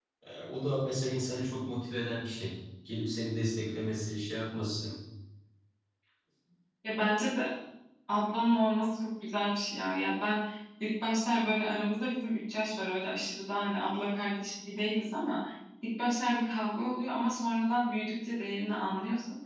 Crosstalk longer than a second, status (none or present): none